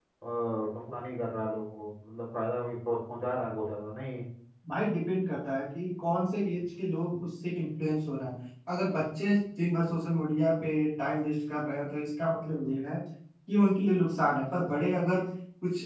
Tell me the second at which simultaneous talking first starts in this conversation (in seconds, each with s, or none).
none